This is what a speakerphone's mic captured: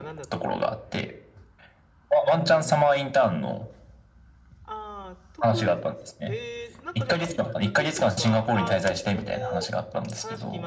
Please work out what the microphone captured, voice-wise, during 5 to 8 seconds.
both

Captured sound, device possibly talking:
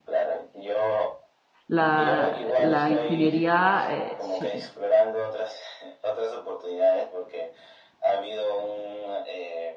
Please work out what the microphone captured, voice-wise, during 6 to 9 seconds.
echo only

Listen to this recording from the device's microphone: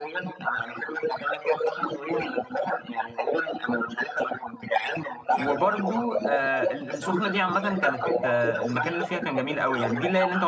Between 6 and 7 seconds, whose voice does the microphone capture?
both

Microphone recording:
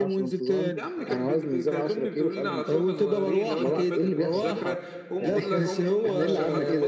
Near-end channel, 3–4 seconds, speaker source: both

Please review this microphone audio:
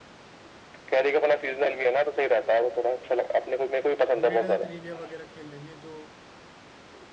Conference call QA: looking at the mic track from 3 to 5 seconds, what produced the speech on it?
both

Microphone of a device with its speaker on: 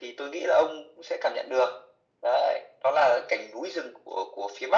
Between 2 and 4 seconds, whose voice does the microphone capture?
echo only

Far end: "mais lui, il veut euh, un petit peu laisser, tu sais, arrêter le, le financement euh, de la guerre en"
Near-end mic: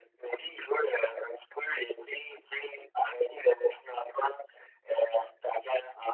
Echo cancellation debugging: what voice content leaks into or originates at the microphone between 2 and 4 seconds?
echo only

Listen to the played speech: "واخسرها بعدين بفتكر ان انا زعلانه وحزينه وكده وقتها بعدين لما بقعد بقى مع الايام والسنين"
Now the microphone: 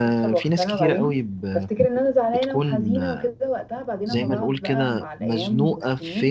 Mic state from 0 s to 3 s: both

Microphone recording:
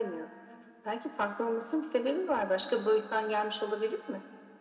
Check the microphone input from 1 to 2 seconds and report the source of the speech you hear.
echo only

